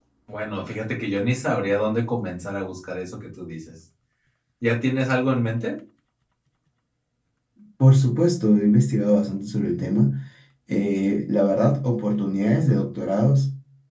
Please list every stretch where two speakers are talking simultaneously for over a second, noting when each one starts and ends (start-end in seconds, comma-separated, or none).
none